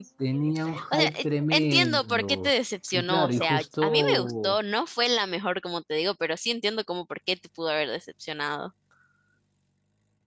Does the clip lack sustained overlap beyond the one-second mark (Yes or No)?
No